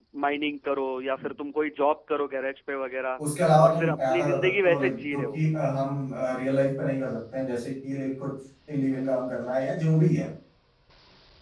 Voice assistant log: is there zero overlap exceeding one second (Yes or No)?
No